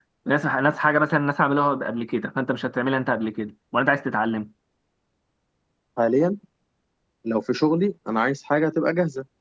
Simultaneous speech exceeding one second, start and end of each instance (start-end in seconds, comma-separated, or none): none